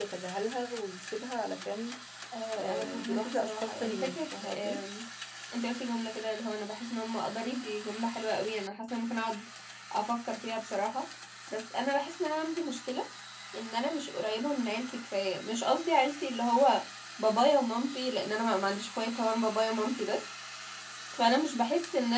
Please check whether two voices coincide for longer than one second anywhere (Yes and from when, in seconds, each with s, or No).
Yes, from 2.6 s